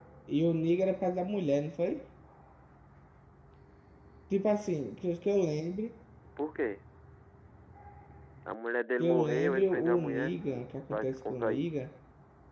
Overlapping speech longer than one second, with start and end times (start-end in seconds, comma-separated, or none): 9.0-11.7